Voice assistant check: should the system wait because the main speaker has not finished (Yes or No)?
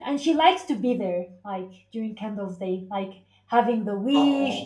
Yes